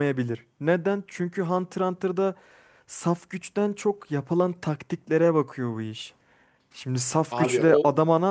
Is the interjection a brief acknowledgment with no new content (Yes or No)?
Yes